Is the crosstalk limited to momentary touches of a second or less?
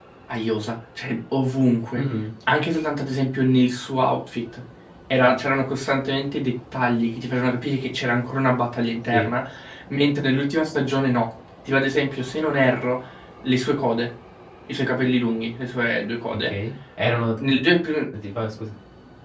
Yes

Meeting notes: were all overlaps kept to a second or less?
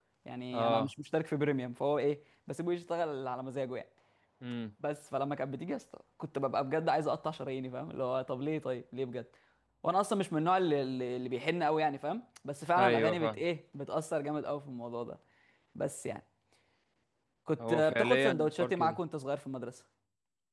No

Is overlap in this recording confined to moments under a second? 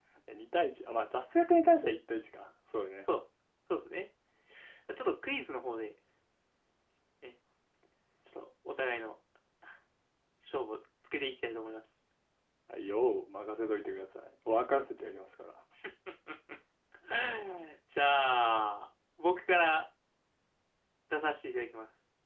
Yes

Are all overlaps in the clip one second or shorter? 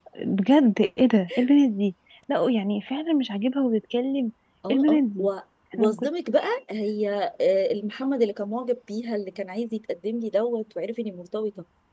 Yes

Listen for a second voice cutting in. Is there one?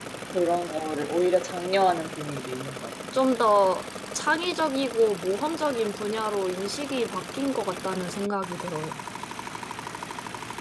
No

